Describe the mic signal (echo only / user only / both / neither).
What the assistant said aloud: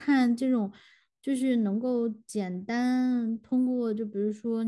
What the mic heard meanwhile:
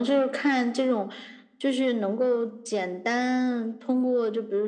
echo only